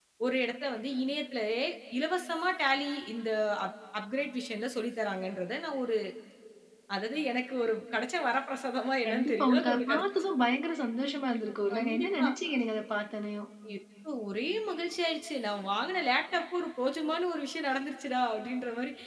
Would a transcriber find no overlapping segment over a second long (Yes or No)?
No